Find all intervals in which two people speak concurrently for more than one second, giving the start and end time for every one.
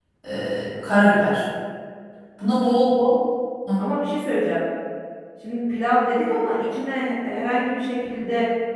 none

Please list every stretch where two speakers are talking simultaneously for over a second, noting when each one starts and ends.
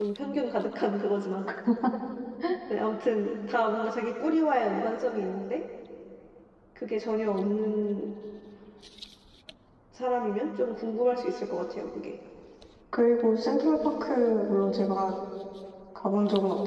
none

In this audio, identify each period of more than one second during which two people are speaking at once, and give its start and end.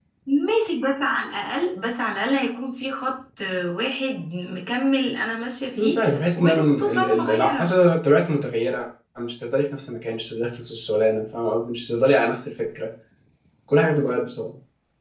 5.8-7.7

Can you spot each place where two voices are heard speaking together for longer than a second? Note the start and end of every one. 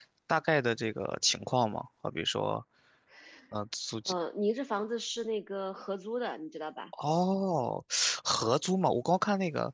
none

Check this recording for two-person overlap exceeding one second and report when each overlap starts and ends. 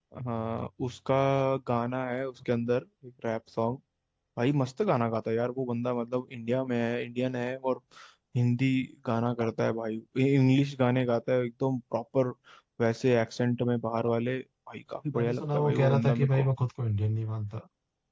15.1-16.5

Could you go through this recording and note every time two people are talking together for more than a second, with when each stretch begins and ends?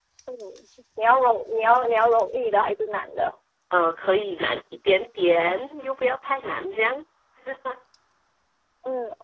none

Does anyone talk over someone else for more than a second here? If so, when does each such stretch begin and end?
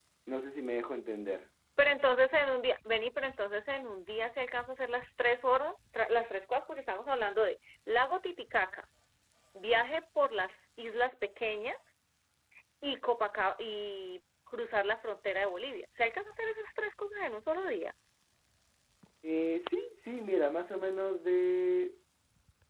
none

